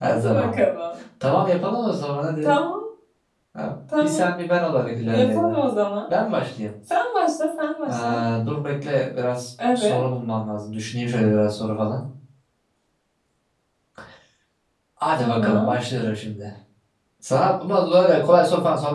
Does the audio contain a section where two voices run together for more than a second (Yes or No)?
No